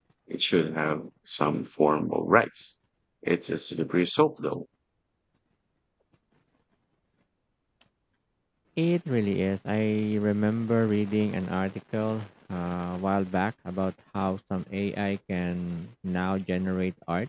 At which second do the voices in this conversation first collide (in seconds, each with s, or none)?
none